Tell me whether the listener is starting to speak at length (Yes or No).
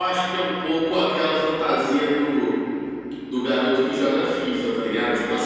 No